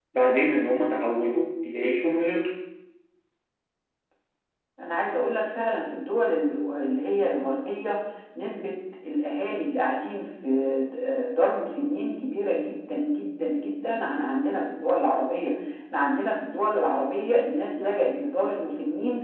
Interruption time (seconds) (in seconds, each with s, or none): none